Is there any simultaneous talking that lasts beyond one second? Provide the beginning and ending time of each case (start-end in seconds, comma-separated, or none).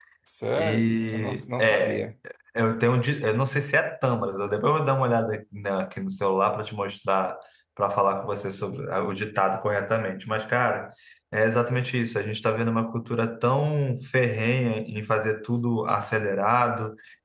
0.6-2.0